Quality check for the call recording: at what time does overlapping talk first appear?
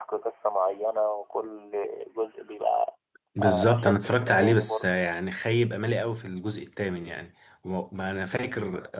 3.4 s

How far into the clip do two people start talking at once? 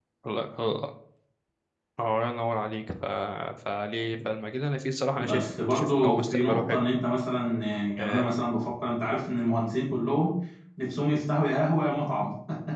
5.3 s

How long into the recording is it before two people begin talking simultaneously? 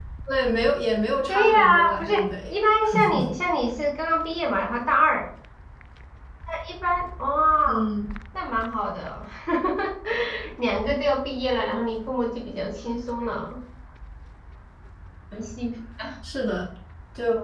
1.3 s

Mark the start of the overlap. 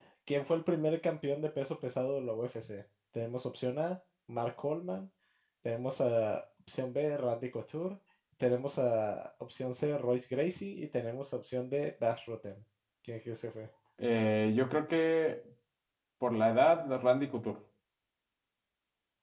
none

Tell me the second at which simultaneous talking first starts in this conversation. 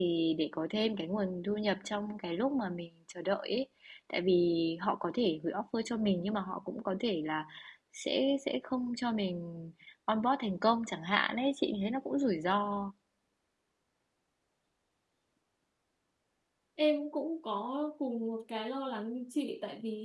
none

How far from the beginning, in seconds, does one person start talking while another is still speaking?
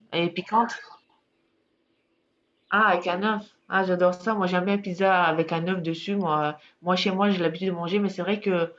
none

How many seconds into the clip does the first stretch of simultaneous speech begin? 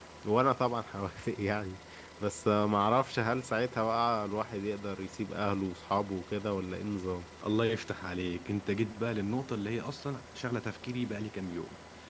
none

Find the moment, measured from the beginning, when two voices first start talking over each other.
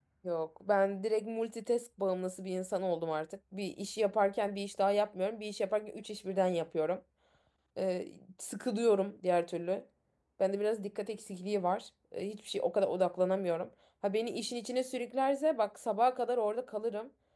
none

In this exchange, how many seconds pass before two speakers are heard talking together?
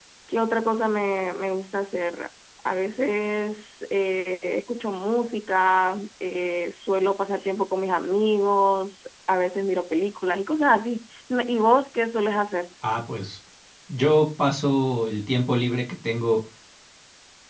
none

